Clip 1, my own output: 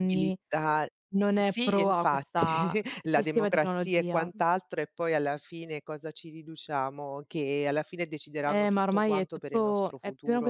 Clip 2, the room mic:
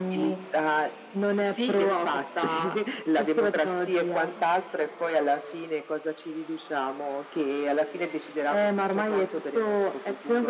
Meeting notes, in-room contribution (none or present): none